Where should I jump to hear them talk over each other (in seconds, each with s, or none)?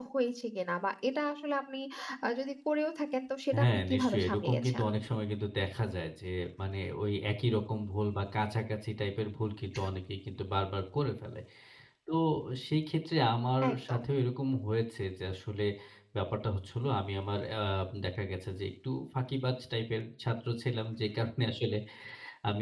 3.6 s